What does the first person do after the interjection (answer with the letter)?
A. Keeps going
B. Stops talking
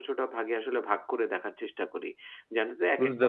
A